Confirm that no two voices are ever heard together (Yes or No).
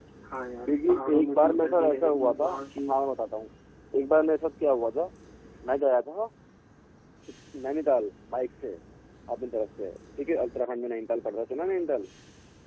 No